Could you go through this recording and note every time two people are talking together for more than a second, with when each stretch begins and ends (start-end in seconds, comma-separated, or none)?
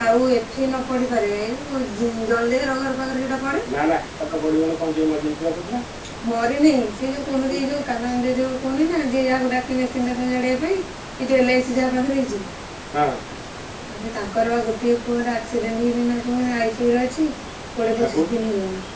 none